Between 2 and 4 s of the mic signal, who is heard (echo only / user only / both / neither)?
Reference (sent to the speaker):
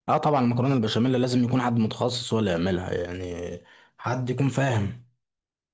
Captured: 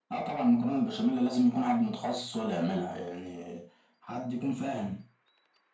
echo only